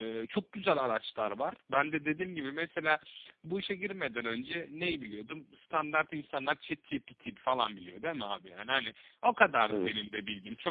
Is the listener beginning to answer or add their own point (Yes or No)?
No